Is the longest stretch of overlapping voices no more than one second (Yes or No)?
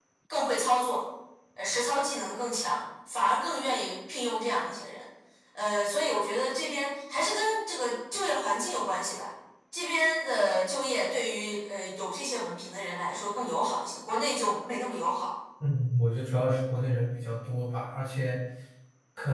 Yes